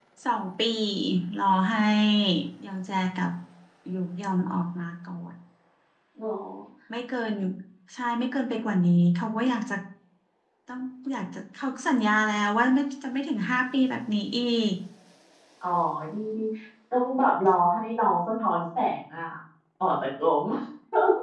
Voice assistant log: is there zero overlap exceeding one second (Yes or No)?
Yes